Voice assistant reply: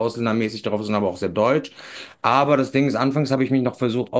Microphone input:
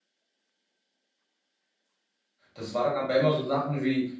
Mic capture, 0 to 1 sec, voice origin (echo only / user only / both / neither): neither